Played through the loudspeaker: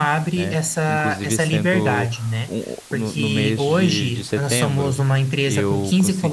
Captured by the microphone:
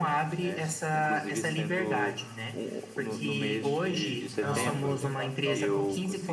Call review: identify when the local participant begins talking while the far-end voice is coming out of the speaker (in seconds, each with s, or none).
4.3 s